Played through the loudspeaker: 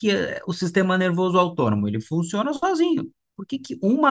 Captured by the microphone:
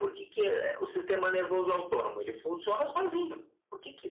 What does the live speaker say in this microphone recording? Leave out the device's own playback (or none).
none